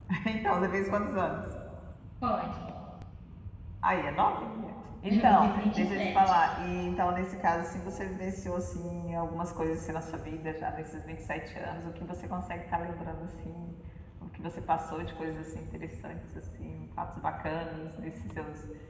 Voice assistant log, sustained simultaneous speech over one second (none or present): present